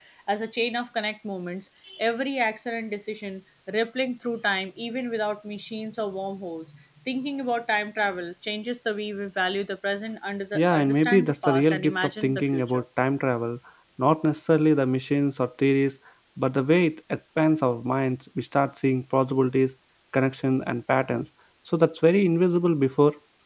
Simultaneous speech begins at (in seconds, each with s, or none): 10.6 s